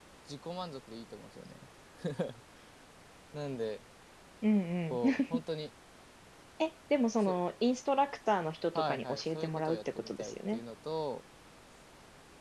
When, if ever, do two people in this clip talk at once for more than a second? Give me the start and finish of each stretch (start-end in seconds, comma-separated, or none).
8.8-10.6